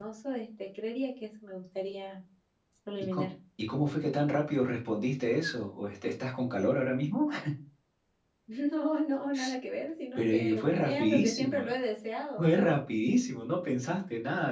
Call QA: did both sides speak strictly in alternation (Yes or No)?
No